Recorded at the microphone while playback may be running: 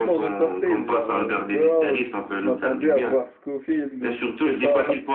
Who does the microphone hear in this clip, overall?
both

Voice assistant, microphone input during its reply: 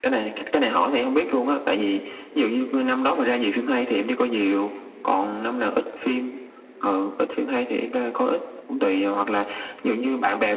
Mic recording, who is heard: echo only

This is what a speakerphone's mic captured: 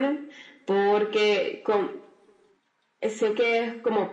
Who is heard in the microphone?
echo only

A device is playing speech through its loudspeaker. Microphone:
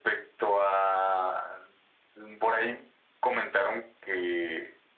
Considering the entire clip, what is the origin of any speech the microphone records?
echo only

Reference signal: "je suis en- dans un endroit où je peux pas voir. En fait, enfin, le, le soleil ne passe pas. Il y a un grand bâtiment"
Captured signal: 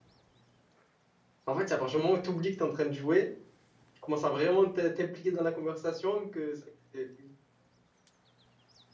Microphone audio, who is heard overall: user only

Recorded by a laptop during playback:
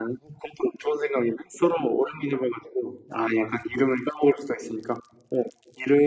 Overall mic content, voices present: echo only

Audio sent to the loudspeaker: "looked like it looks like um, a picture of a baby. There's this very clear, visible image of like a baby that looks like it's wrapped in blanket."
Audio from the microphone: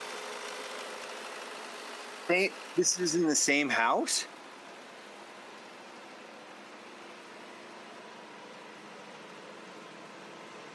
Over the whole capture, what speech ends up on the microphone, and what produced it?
user only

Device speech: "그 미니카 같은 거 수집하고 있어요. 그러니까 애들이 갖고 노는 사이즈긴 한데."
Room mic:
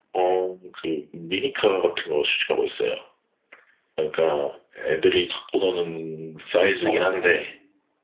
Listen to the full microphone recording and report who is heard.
both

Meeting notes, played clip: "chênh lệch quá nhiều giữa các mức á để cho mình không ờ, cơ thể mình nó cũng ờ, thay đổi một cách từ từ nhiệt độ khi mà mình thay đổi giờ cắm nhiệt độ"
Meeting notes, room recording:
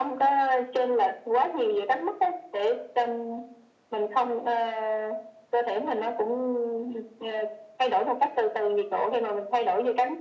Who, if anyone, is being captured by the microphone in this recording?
echo only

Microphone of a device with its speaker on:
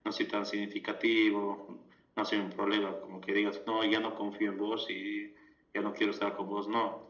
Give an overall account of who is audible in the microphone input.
echo only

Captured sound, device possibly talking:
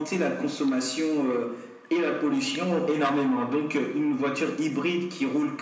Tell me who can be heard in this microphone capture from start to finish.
echo only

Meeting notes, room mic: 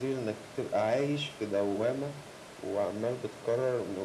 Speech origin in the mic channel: echo only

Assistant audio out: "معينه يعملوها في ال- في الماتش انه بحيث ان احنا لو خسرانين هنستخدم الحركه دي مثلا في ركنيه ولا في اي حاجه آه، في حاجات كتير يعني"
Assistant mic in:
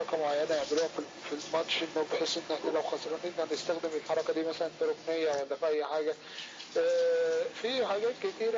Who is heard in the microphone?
echo only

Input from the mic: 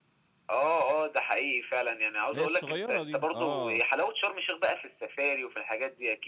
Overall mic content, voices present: both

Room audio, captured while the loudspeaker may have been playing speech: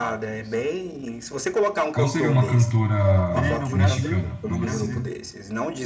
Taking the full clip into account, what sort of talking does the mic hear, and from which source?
both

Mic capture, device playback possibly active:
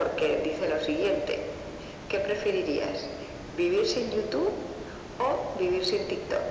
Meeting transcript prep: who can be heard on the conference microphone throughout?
echo only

